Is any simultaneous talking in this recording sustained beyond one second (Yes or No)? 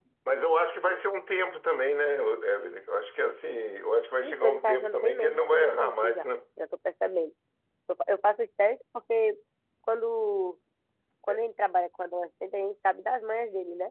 Yes